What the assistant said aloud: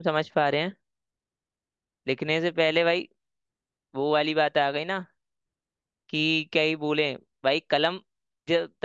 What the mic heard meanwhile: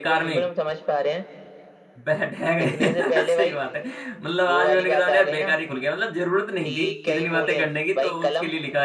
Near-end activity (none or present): present